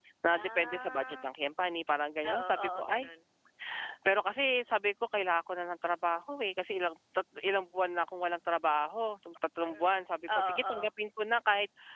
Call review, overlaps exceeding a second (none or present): present